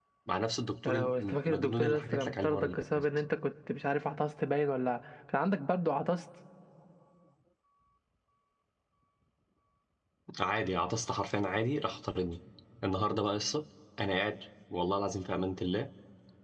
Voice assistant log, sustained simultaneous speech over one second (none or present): present